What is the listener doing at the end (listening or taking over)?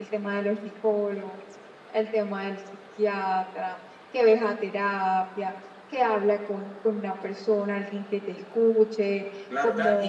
taking over